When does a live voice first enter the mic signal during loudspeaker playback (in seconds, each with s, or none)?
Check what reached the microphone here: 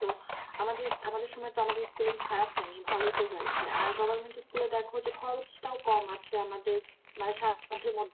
none